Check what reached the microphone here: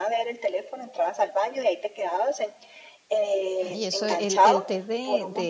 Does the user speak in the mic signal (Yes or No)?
Yes